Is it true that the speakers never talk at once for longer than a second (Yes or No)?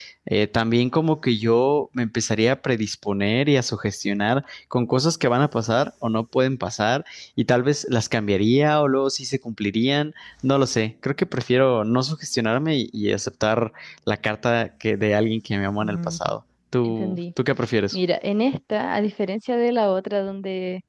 Yes